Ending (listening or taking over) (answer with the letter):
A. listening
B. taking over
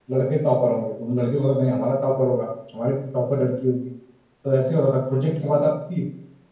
A